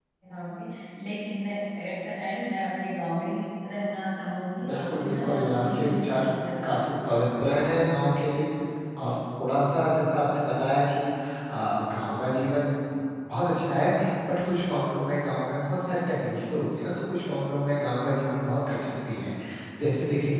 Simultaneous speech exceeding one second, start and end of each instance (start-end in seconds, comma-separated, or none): 4.6-6.2